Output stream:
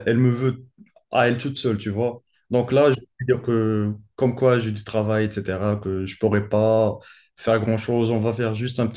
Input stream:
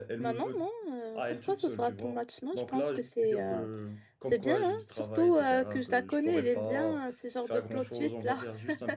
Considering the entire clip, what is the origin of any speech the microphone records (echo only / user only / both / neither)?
both